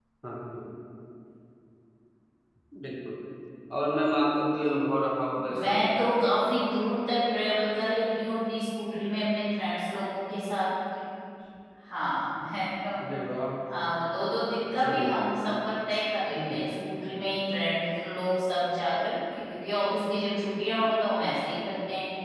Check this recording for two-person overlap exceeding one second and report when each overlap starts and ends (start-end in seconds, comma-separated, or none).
none